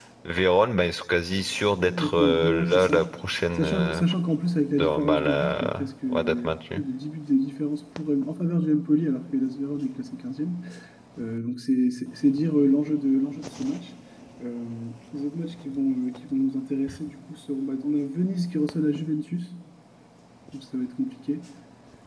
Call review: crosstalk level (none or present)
present